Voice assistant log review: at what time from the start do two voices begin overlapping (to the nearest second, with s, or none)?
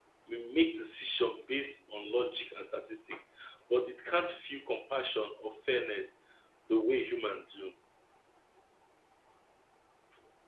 none